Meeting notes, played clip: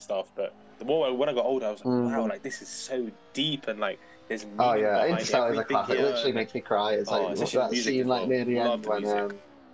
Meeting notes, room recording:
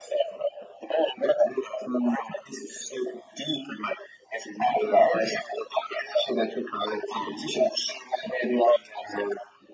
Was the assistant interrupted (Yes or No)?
No